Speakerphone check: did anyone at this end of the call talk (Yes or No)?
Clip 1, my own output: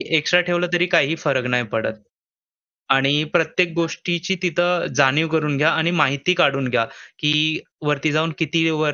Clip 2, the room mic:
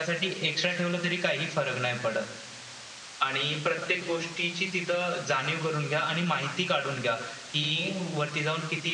Yes